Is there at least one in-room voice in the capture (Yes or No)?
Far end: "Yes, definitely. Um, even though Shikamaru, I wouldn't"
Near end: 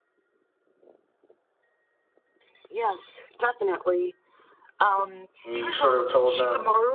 Yes